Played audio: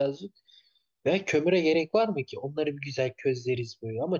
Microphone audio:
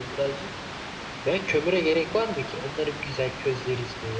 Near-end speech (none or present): none